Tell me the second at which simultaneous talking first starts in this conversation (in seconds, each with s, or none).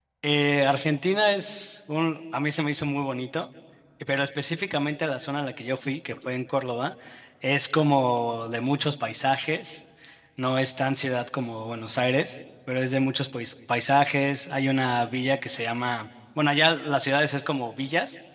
none